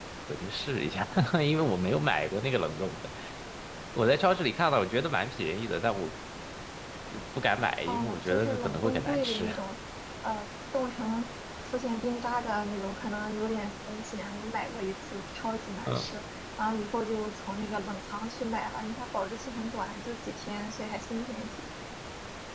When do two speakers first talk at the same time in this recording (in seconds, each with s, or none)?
7.9 s